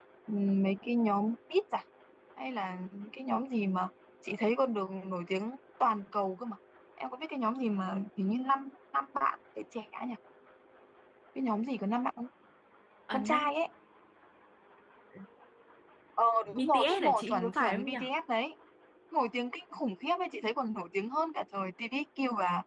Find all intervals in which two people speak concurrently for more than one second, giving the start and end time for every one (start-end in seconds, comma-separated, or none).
16.6-18.0